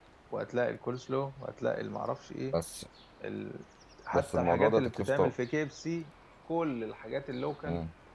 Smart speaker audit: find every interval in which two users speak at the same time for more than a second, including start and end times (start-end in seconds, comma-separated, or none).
4.1-5.3